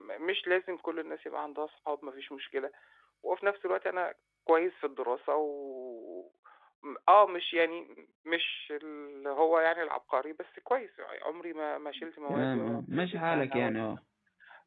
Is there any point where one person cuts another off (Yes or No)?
Yes